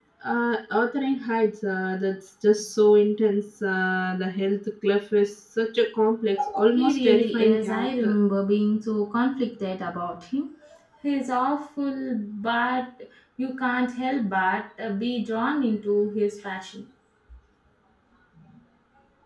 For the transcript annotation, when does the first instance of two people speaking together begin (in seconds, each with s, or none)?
6.7 s